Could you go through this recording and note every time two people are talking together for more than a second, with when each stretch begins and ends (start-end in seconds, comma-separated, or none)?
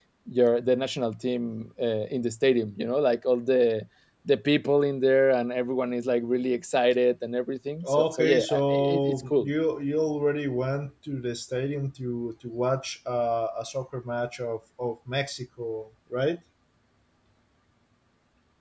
7.8-9.5